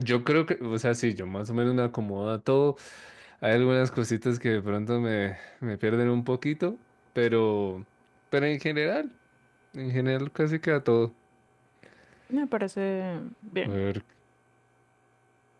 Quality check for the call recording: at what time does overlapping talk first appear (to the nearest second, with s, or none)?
none